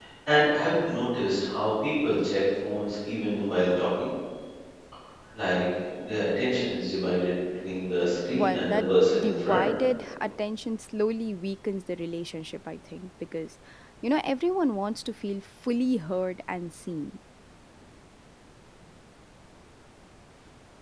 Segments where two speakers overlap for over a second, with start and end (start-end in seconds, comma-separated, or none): 8.3-9.6